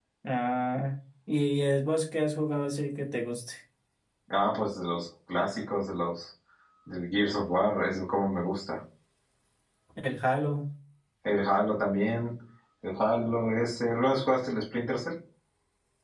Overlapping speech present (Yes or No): No